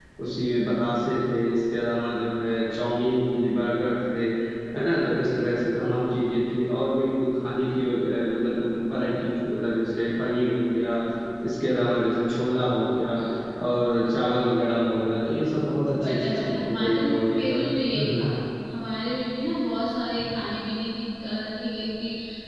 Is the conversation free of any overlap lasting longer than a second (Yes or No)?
No